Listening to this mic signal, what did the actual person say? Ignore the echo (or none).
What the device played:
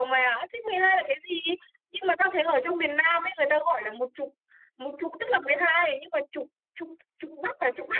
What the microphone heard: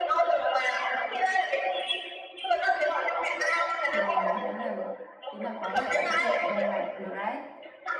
Rồi, thế là chứng tỏ khó vậy mà cũng suy luận ra là được đấy.